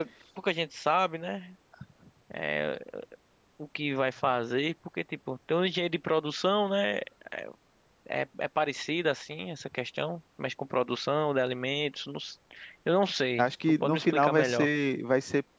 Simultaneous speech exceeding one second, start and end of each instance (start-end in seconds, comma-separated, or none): 13.4-14.7